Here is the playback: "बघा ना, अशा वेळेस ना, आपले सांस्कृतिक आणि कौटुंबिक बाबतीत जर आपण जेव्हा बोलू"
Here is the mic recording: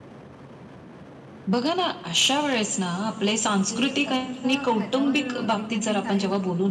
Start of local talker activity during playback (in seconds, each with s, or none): 3.7 s